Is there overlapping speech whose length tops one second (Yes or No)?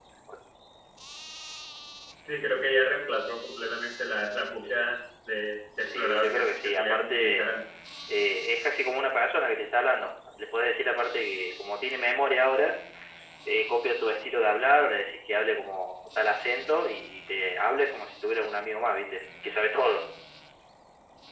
Yes